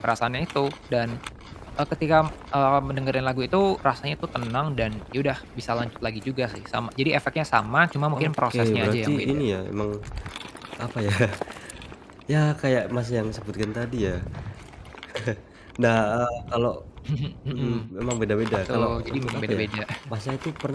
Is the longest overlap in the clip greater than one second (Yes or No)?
Yes